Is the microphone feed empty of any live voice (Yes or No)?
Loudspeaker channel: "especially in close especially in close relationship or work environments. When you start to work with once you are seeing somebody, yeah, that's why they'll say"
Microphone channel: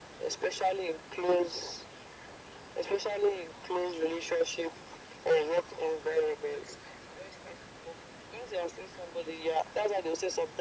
Yes